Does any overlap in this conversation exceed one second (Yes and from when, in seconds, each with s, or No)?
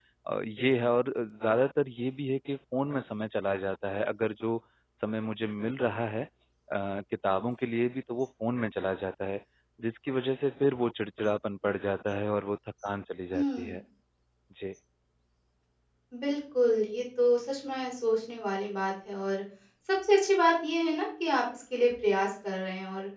No